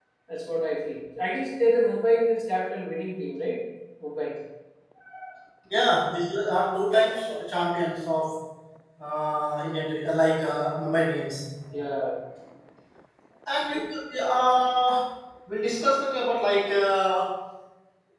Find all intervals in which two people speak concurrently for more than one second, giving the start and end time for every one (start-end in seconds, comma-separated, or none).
none